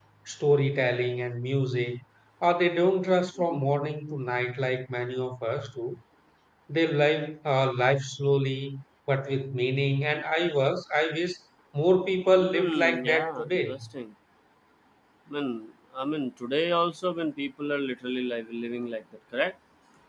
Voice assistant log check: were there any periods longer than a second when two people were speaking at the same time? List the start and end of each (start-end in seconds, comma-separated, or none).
12.4-13.8